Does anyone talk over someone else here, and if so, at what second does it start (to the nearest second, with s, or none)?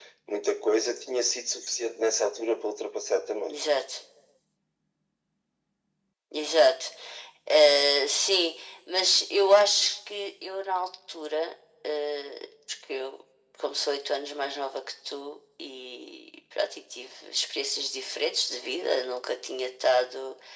none